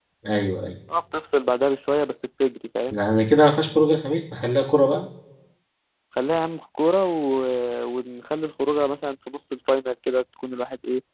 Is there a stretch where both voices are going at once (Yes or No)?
No